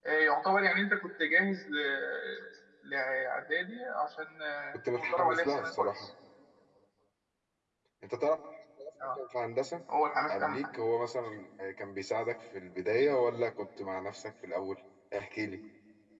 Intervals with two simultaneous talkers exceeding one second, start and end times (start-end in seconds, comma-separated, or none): 4.7-6.1